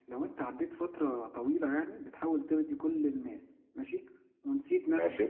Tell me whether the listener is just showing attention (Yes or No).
Yes